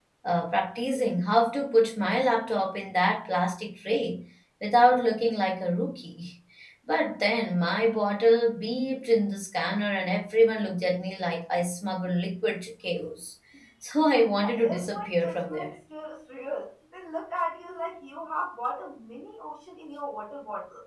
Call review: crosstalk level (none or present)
present